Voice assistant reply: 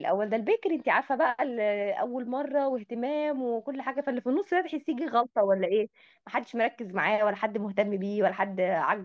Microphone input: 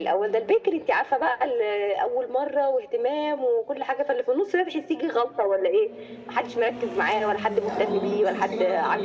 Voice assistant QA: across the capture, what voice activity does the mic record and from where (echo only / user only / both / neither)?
both